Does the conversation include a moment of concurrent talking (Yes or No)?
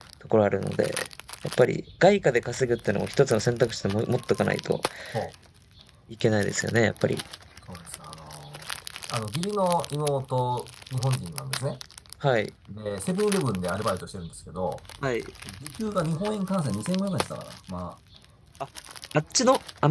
No